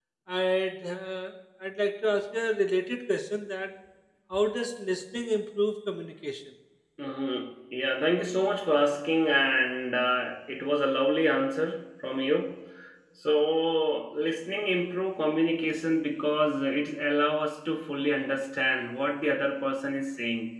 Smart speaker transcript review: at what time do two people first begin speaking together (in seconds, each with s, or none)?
none